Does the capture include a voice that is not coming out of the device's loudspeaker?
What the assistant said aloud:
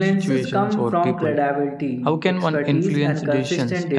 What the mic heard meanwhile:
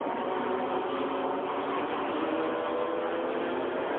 No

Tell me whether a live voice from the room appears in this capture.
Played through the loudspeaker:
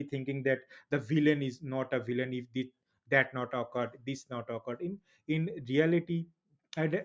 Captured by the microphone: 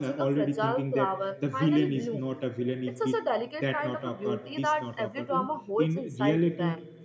Yes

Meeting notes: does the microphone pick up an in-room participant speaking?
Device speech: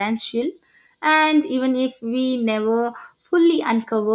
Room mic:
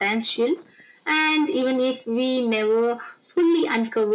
No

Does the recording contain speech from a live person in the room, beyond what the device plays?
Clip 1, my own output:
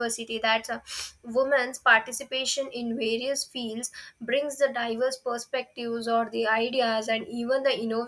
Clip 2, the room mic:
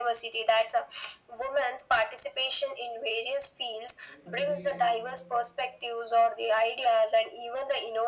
Yes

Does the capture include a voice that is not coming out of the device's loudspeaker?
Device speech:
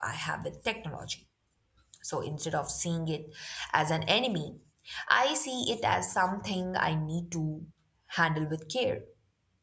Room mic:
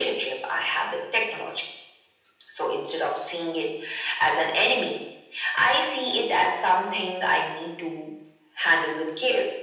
No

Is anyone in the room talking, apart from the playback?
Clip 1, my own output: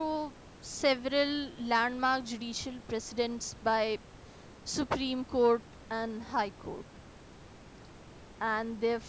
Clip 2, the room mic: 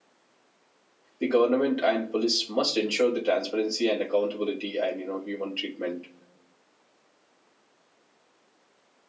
Yes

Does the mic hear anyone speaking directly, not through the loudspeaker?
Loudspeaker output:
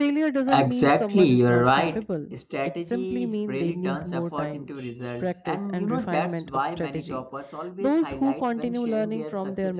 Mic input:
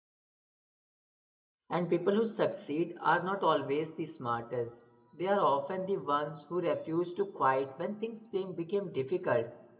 Yes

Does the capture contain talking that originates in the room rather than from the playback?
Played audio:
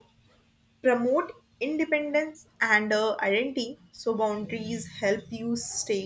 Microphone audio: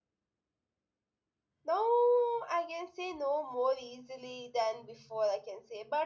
Yes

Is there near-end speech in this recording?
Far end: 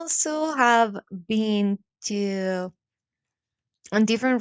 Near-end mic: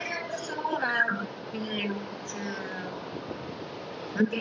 No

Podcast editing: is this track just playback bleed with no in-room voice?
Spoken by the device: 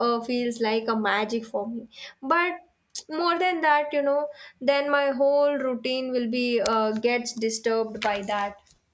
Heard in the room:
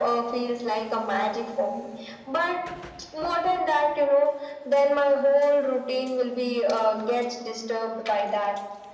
Yes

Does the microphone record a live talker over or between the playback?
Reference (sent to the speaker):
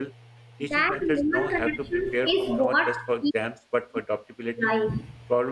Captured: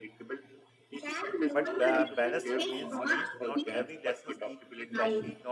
Yes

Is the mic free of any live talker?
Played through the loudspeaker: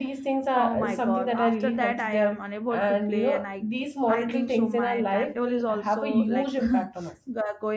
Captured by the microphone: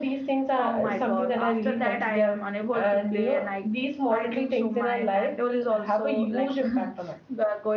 Yes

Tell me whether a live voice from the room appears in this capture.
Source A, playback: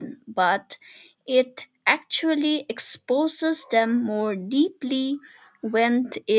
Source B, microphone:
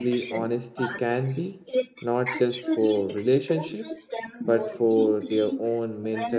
Yes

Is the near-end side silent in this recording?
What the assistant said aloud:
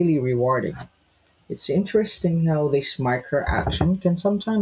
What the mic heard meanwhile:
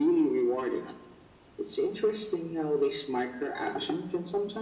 Yes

